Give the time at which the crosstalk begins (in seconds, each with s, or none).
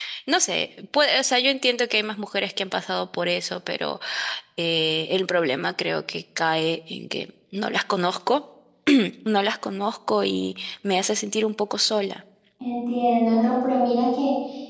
none